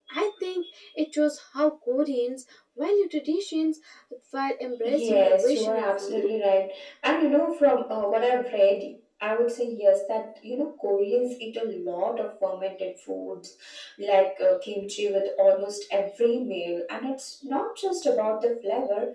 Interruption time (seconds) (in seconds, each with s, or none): 4.8 s